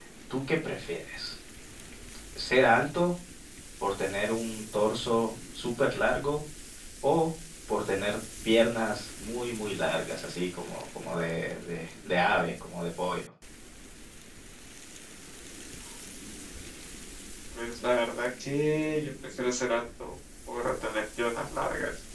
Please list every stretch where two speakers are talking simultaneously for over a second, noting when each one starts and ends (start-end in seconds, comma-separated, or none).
none